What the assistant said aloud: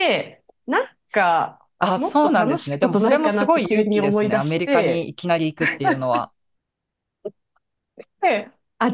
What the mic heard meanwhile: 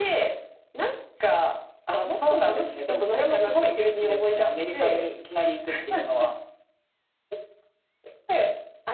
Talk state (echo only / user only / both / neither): echo only